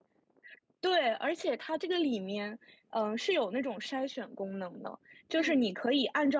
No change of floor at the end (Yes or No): Yes